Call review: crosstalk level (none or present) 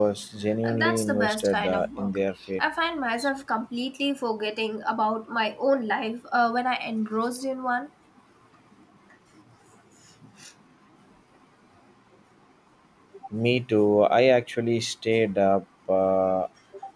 present